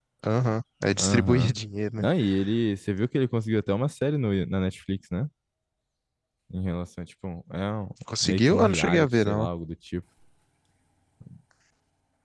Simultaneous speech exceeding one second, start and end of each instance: 8.2-9.5

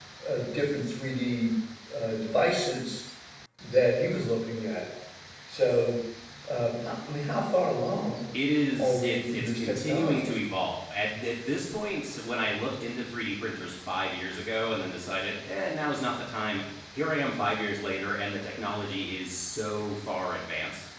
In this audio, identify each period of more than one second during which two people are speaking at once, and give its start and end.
8.8-10.3

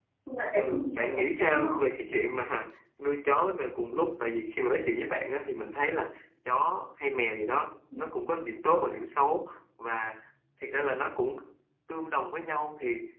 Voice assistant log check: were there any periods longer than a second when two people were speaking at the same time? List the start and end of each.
0.6-2.1

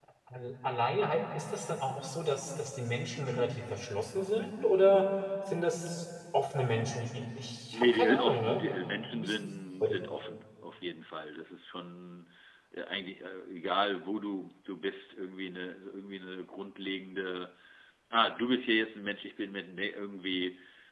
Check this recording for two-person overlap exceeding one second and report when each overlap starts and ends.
7.7-9.3

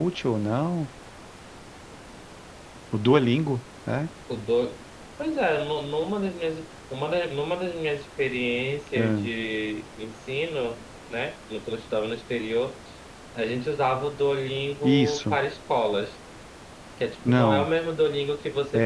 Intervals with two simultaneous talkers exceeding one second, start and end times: none

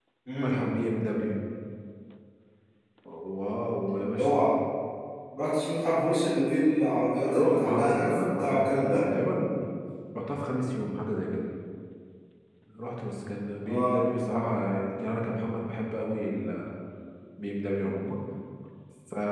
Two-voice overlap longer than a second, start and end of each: 7.3-9.0

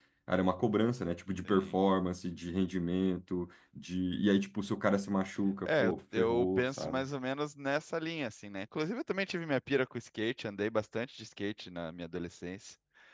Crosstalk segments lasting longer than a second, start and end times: 5.6-7.0

